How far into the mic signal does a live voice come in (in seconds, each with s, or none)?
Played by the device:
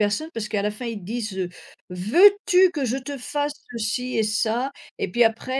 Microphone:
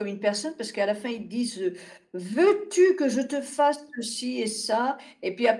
none